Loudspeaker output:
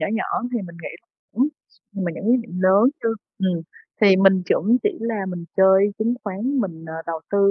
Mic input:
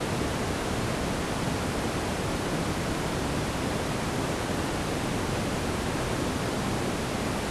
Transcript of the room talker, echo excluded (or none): none